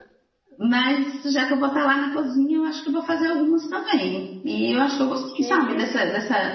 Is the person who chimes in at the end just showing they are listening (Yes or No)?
Yes